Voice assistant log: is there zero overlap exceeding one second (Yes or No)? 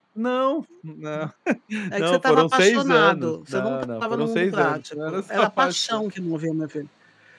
No